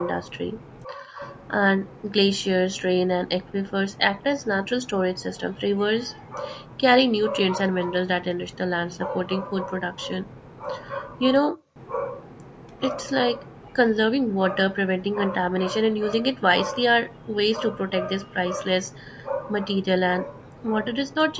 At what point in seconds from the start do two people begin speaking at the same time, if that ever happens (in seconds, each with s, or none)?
none